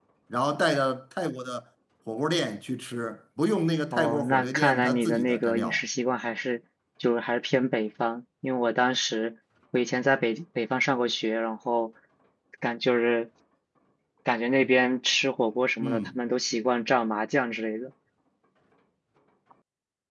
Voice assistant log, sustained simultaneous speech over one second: present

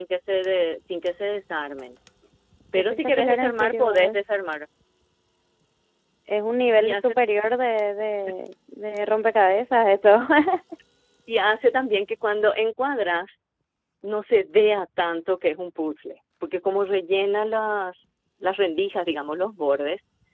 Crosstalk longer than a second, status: present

